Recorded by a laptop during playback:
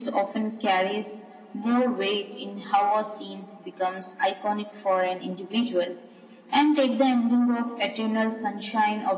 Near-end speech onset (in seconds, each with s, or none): none